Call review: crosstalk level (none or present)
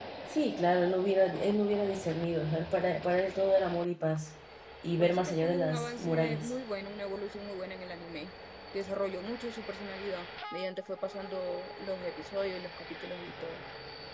present